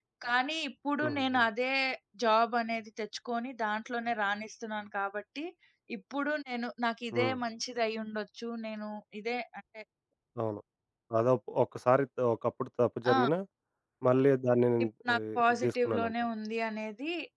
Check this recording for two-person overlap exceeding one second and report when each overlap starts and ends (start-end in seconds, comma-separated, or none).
14.8-16.1